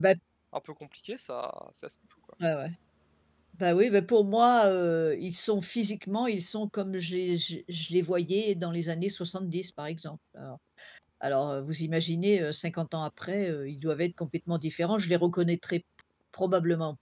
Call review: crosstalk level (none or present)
none